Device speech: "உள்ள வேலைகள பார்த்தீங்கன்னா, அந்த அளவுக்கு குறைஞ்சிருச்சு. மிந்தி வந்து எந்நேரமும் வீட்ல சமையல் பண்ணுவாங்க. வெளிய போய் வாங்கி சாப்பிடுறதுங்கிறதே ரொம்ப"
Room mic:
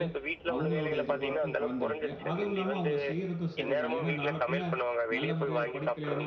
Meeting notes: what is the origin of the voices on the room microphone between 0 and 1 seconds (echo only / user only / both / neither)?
both